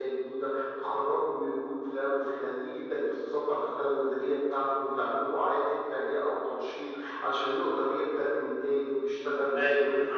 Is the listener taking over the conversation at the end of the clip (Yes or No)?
Yes